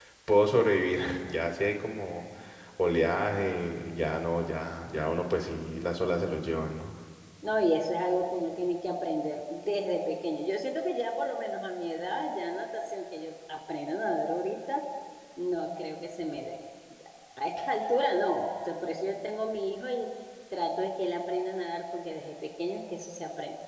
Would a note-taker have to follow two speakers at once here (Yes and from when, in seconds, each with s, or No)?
No